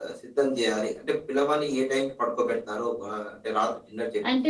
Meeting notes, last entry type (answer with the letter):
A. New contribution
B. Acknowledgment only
A